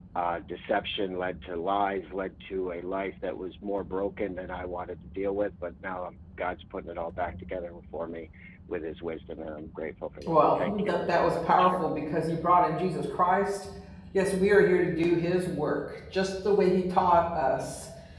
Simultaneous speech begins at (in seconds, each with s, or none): 10.2 s